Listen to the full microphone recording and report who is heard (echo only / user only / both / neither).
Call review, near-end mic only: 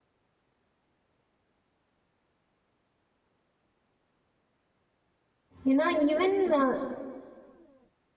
user only